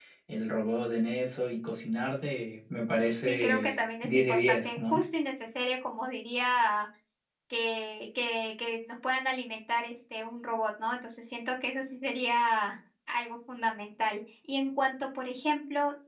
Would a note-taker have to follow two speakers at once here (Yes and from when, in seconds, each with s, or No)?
Yes, from 3.3 s